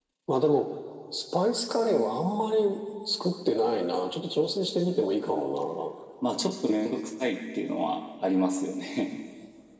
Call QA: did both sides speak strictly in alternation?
Yes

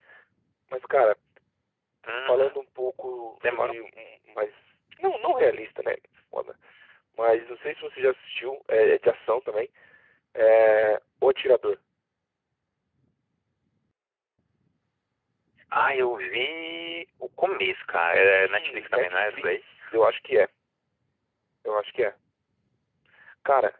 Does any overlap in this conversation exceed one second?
Yes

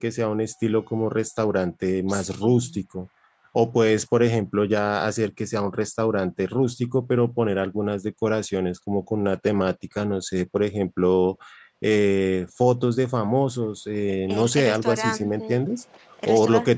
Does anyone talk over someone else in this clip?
Yes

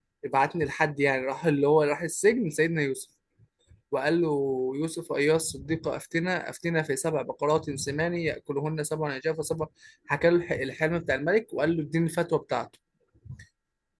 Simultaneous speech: No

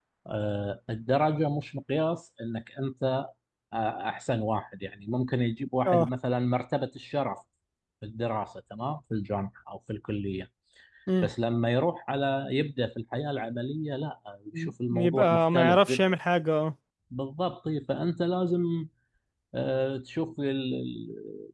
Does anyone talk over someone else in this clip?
Yes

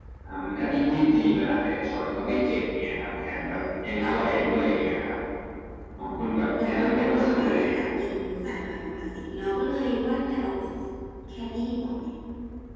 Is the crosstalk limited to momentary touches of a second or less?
No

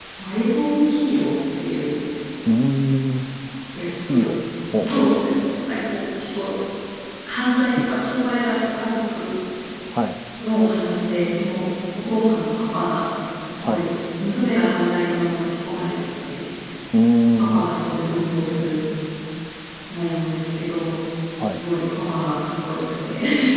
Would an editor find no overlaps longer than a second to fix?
Yes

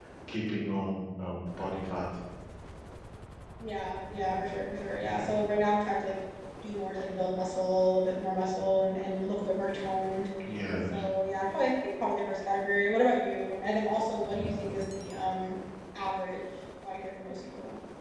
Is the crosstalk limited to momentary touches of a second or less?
Yes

